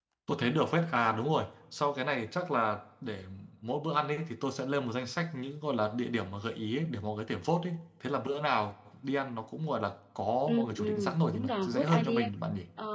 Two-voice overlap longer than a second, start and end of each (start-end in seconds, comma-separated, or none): 10.5-12.3